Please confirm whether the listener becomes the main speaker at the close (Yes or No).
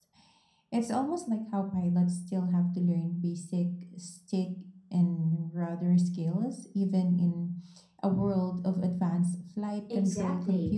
Yes